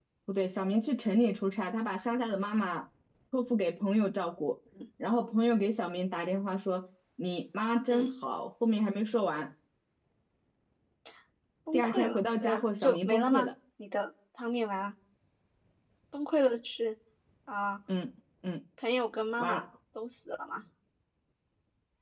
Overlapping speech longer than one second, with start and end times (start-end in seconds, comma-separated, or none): 11.7-13.5